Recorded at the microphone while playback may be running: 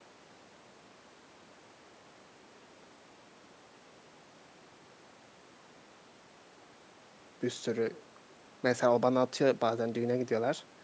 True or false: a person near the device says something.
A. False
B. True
B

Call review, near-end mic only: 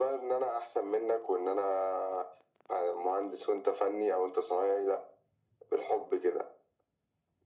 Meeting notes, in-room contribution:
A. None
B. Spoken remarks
A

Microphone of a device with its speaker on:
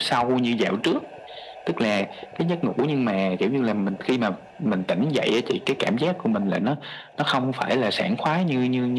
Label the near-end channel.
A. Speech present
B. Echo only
B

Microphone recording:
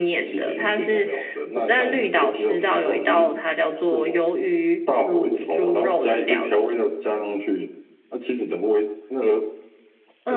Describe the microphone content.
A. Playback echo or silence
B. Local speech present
A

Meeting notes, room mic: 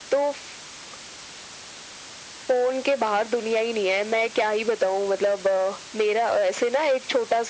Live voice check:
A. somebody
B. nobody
B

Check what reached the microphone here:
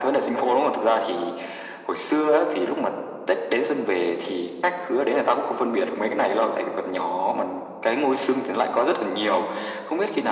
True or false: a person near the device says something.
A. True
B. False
B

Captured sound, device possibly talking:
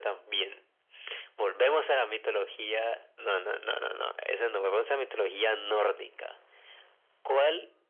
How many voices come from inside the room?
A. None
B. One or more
A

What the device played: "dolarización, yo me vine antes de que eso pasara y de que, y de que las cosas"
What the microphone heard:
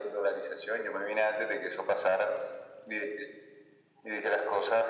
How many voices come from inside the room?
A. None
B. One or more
A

